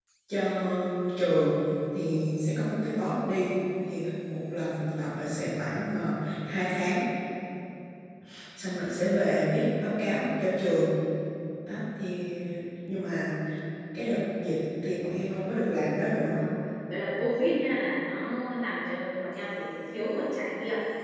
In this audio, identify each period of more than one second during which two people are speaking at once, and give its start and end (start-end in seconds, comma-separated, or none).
none